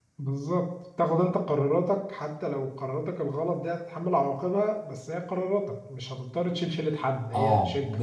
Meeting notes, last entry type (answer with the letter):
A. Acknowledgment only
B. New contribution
B